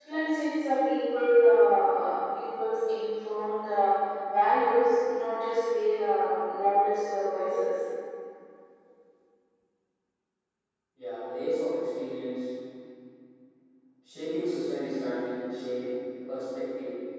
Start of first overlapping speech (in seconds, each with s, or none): none